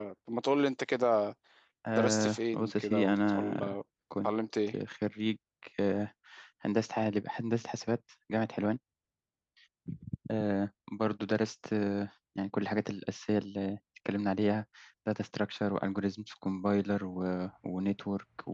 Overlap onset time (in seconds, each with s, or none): 2.0 s